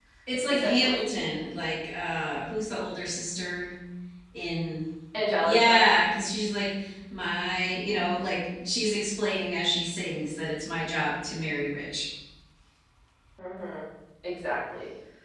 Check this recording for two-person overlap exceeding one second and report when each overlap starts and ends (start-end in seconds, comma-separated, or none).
none